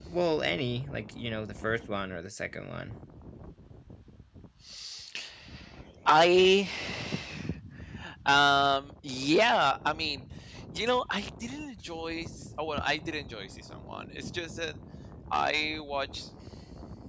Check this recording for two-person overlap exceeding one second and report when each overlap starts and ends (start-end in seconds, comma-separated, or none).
none